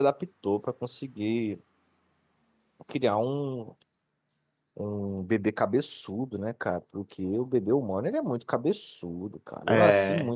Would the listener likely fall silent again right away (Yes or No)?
Yes